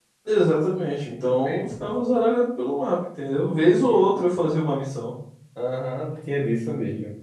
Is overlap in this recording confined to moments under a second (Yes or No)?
Yes